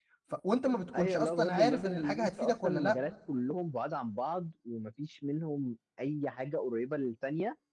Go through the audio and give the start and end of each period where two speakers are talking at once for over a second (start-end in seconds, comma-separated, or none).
0.9-3.0